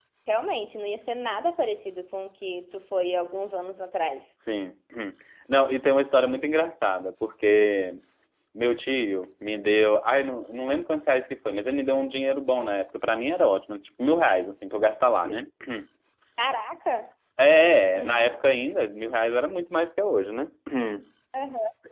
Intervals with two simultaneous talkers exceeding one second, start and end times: none

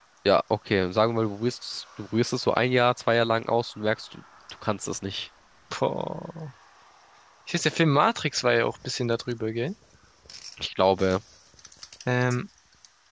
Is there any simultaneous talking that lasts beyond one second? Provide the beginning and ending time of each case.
none

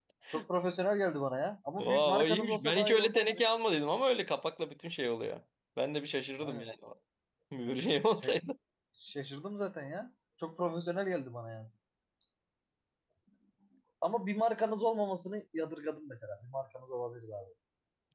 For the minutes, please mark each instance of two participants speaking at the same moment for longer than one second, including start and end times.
1.8-3.4

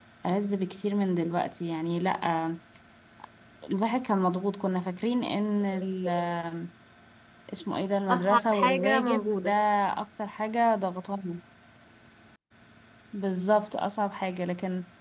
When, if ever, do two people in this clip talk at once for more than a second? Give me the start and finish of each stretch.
8.1-9.5

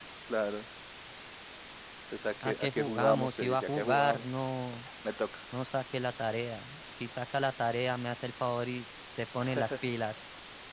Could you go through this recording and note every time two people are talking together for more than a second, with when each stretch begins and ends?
2.4-4.2

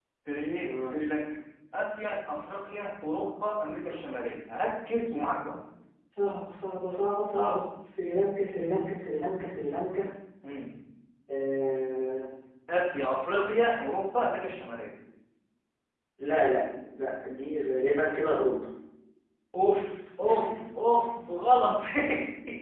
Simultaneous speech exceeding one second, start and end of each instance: 2.6-4.0

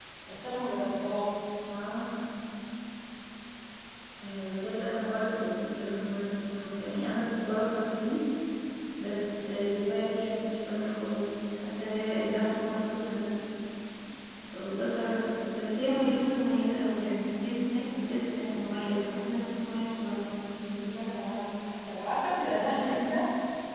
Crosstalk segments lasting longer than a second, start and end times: none

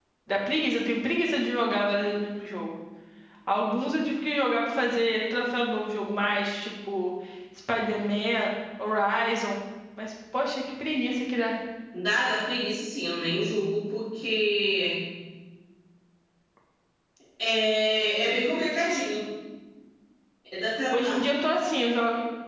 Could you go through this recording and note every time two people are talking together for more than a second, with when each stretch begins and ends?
none

